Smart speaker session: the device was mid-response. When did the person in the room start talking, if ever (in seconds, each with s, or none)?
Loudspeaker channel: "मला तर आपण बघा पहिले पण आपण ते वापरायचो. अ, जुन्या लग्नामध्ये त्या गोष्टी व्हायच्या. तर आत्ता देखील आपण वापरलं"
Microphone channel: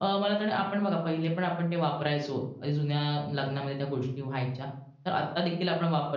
none